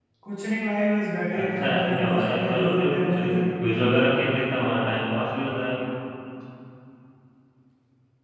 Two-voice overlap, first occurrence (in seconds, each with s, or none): 1.6 s